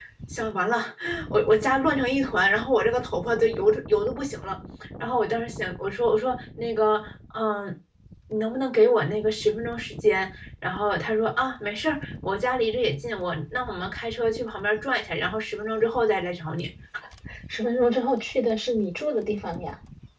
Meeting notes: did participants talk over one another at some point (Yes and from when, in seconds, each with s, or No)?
No